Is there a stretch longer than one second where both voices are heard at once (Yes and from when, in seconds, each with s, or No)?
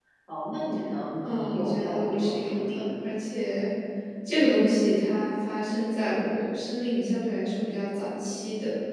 Yes, from 1.2 s